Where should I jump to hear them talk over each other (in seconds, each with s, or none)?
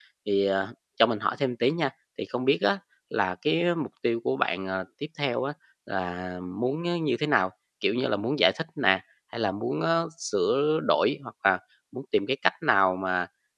none